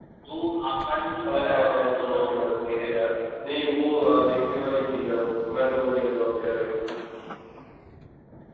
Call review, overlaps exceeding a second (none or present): present